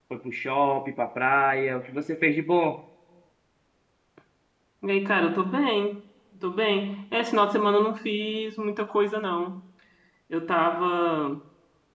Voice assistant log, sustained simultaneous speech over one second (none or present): none